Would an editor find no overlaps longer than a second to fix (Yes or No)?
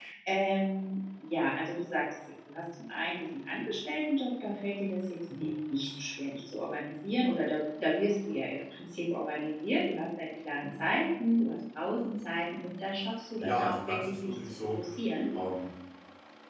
No